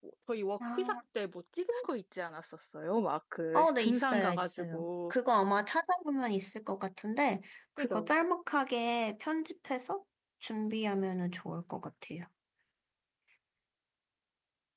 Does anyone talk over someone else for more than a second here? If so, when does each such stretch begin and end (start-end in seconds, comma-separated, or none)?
3.5-5.1